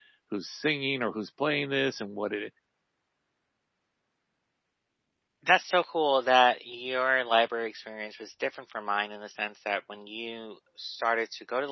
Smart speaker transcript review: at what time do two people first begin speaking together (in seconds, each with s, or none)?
none